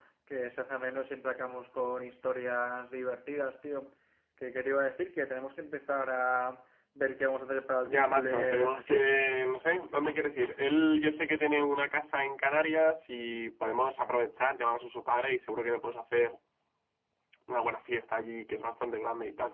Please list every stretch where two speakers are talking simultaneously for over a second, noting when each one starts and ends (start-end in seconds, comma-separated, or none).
7.9-9.2